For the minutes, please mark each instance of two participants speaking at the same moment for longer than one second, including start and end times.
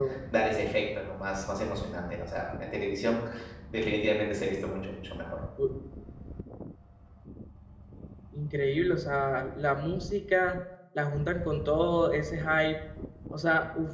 none

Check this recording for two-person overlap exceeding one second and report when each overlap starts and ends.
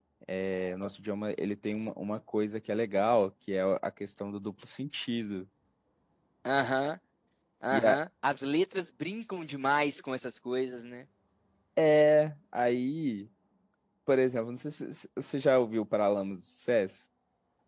none

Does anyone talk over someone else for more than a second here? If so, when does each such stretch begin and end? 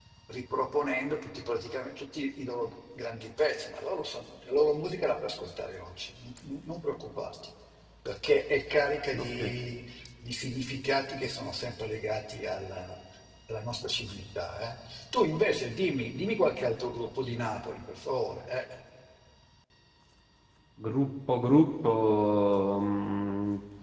none

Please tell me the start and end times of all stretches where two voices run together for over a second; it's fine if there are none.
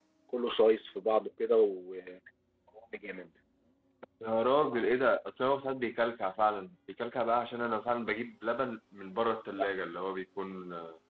none

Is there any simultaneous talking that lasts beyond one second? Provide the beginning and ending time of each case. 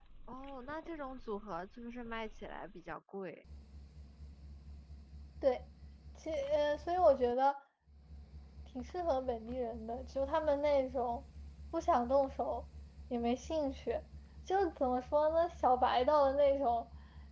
none

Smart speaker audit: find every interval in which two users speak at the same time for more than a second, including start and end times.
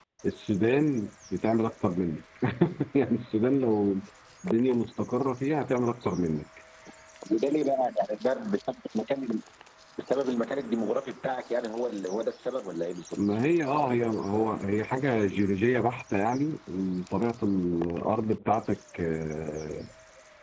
none

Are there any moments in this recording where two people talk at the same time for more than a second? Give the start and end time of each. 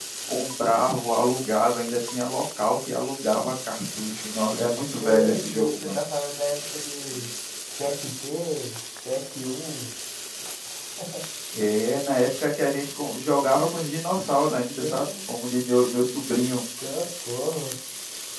4.6-5.9

